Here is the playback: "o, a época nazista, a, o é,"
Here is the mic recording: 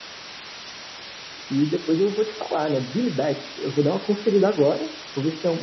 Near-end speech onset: 1.5 s

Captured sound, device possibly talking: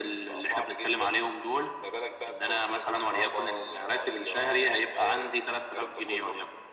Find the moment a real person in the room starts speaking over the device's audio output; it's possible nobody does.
none

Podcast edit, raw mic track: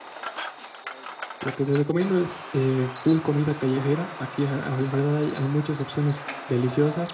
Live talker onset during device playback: 1.4 s

